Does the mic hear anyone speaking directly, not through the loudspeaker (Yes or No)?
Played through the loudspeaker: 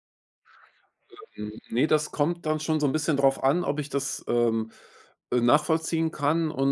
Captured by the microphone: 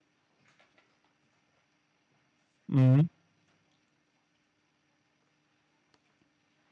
Yes